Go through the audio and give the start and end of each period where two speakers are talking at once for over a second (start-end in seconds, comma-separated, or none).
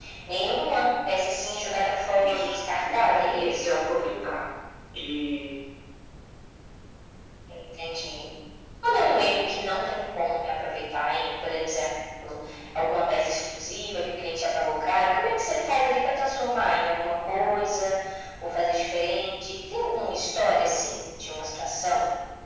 2.1-3.7